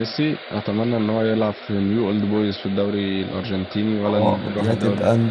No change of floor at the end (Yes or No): No